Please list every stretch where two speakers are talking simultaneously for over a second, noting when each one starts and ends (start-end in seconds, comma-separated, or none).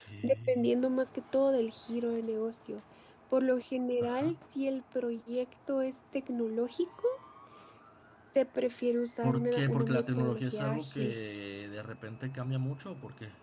9.2-11.0